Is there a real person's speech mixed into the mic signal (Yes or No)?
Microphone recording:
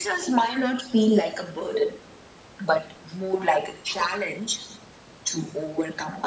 No